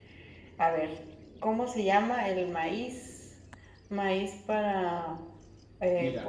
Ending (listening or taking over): taking over